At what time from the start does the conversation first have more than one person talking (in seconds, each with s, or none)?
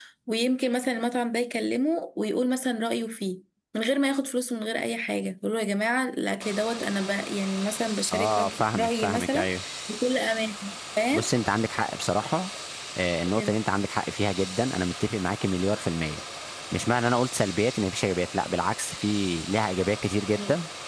8.1 s